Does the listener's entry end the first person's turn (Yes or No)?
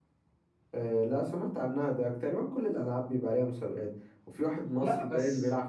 No